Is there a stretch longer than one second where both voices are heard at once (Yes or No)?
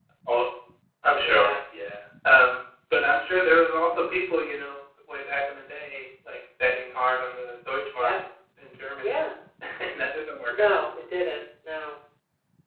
No